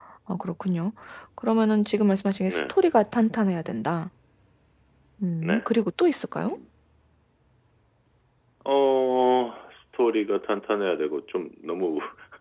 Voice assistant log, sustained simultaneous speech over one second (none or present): none